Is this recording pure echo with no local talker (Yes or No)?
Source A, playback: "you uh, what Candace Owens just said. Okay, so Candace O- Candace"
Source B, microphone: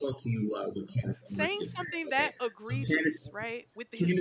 No